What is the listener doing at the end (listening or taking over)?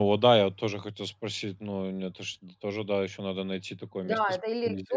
taking over